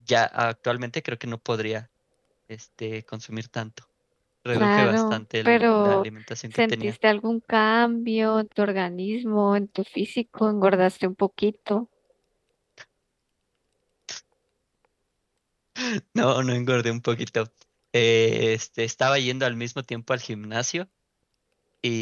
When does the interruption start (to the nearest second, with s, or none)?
5 s